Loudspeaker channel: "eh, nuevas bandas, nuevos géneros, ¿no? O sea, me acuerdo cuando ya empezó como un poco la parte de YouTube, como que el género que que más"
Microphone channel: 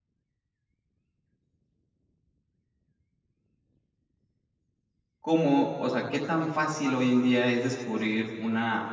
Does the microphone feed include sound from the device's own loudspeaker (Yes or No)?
No